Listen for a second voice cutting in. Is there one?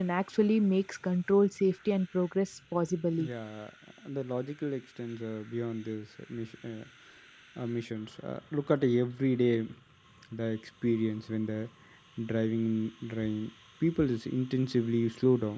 No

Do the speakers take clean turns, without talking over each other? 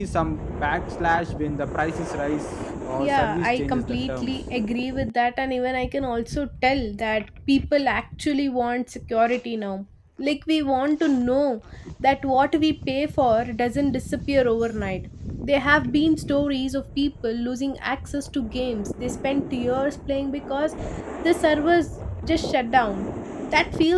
No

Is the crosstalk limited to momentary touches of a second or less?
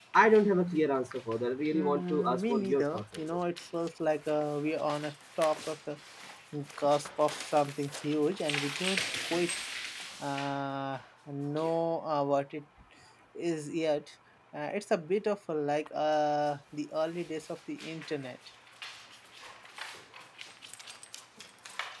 No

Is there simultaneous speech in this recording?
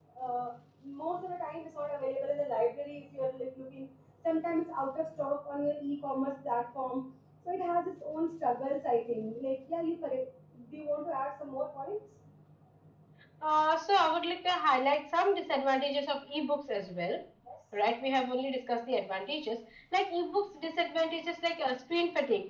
No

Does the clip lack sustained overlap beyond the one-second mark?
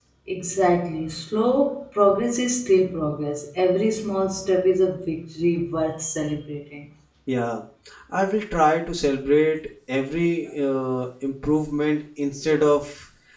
Yes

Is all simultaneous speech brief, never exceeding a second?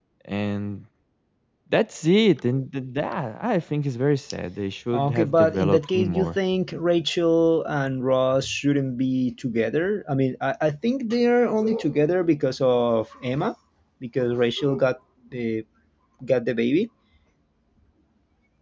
No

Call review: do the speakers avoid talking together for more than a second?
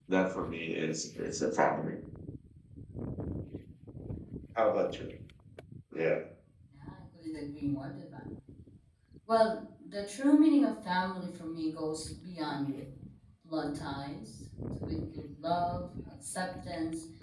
Yes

